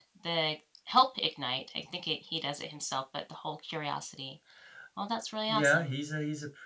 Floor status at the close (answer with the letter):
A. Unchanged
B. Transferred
B